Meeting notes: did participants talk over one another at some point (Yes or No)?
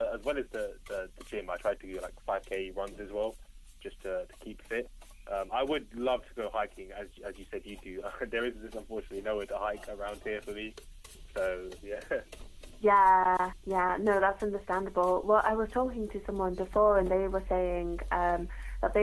No